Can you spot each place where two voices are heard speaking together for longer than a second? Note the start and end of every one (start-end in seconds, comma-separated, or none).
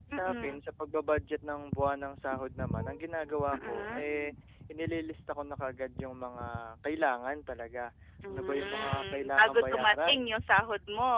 8.3-10.3